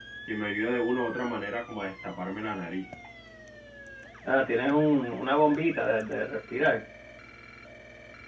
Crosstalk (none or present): none